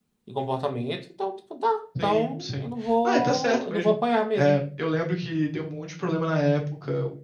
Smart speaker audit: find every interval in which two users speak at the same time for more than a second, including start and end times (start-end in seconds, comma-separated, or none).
2.0-4.0